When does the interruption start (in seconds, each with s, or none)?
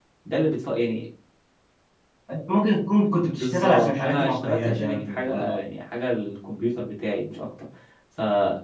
3.3 s